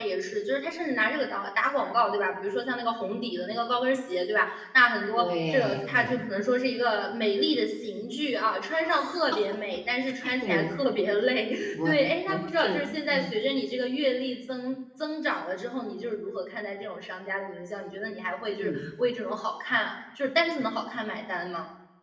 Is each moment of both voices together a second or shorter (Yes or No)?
No